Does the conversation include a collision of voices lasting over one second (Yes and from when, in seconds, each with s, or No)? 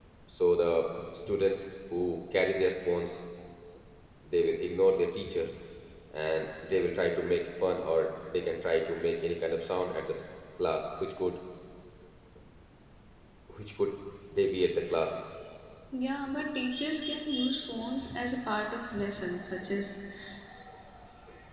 No